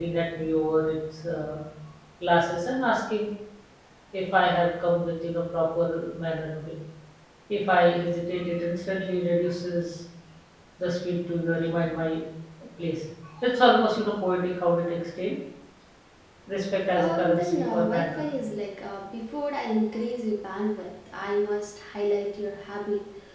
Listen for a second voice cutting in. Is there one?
Yes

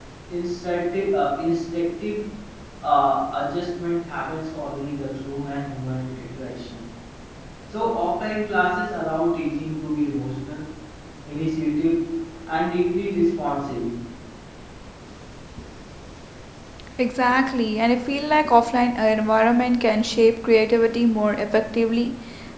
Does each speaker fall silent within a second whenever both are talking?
Yes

